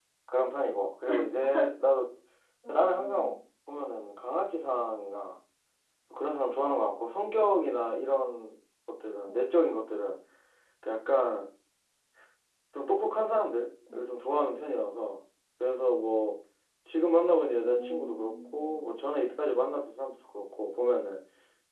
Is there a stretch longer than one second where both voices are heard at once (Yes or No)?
Yes